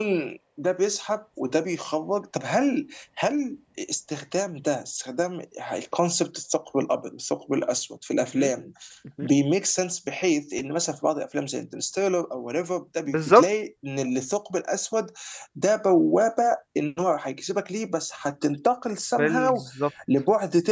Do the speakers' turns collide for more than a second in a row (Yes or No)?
No